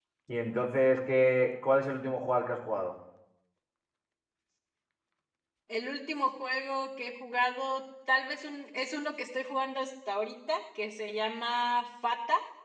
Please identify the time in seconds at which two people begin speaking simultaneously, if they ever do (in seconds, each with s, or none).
none